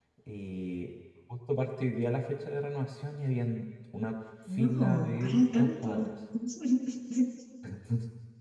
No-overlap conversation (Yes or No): No